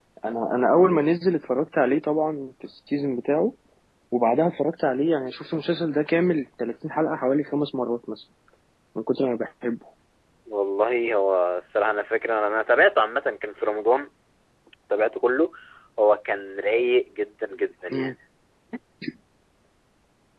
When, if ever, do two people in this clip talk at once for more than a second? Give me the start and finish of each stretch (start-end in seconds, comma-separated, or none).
none